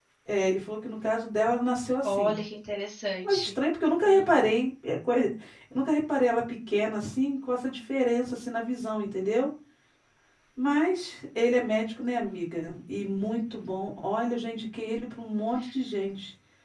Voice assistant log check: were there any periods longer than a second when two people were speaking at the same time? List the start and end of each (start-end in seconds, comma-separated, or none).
none